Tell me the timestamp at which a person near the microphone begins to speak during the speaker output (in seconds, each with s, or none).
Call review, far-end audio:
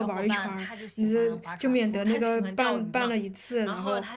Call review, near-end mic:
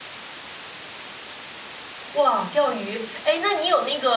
2.1 s